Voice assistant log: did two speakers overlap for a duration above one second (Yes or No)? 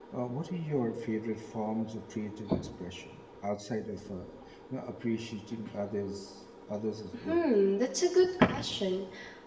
No